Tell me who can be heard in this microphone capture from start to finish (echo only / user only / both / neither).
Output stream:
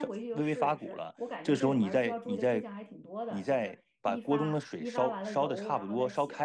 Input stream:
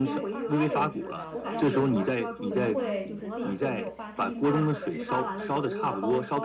both